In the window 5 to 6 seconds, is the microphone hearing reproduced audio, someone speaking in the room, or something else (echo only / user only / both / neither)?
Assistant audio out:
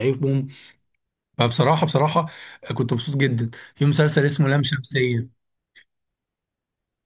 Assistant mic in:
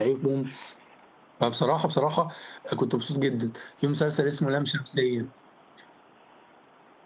echo only